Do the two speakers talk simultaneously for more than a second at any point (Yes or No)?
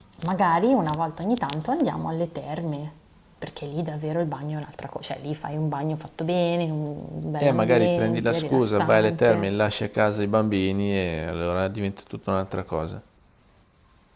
Yes